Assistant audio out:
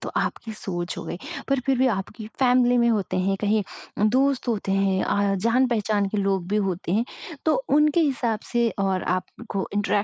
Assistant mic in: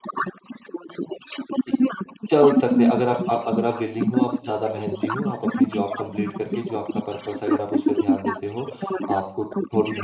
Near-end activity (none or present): present